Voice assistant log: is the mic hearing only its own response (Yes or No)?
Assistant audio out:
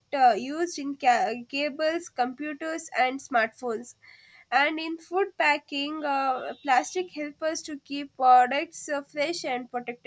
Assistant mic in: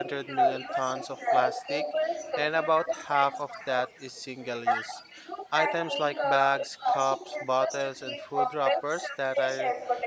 No